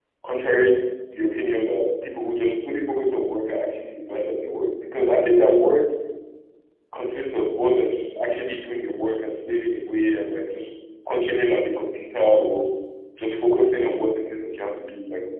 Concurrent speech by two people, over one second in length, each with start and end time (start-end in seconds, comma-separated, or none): none